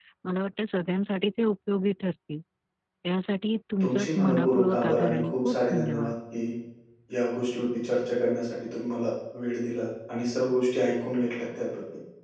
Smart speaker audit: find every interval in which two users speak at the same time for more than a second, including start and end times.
3.8-6.1

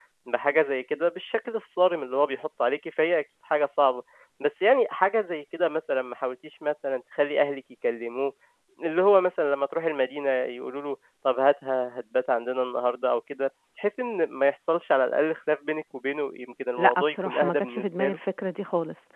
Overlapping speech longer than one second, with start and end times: 16.8-18.2

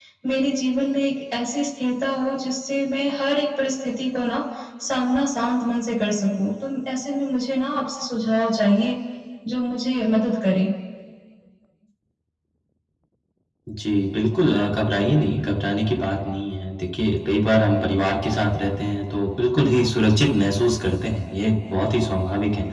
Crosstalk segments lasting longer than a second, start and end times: none

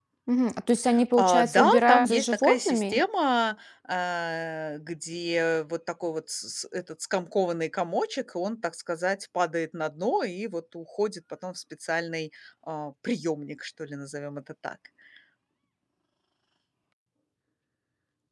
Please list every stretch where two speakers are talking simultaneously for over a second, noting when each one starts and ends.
1.2-3.0

